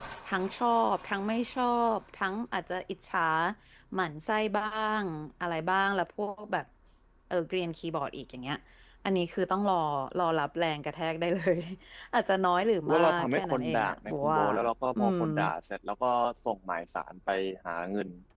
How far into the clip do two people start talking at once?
12.8 s

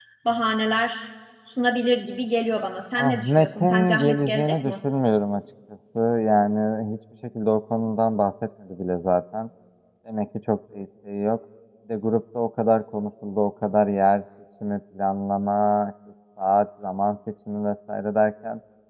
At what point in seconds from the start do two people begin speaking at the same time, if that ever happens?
3.0 s

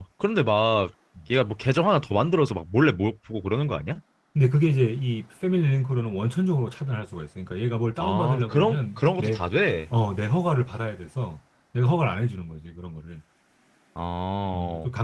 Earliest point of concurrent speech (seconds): 8.0 s

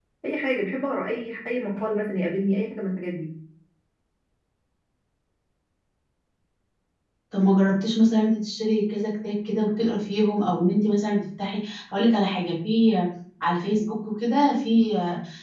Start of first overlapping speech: none

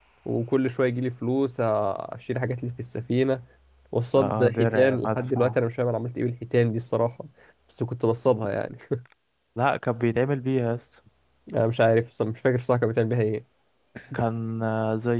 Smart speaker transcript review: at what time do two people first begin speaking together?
4.2 s

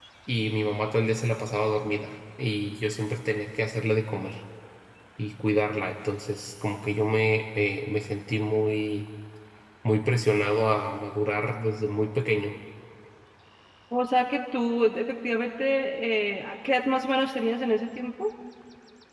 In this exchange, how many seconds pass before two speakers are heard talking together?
none

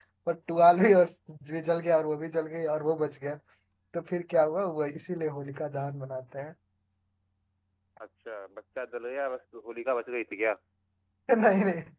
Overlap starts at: none

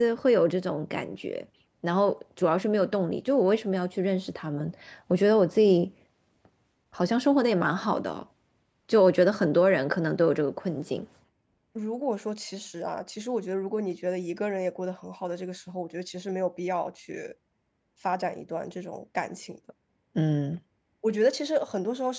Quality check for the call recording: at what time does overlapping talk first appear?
none

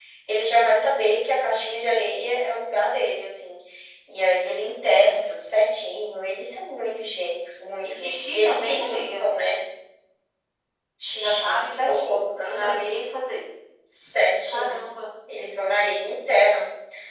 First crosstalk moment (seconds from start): 7.8 s

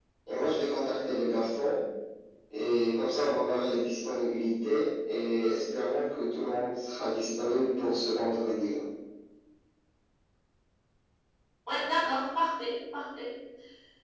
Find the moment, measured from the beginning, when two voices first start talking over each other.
none

